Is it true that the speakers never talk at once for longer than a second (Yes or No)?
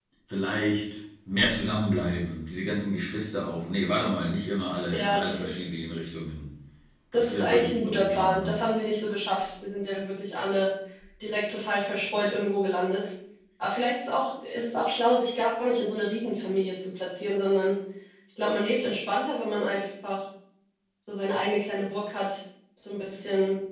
No